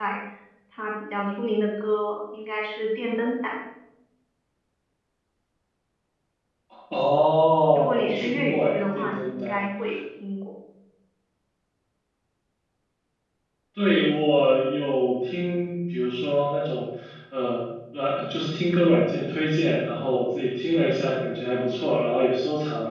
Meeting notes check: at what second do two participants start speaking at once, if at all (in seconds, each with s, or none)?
7.8 s